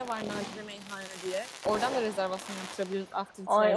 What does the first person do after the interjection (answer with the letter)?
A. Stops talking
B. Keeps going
A